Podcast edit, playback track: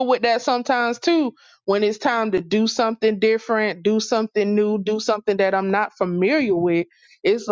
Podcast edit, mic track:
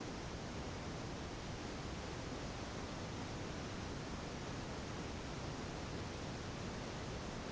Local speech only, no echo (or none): none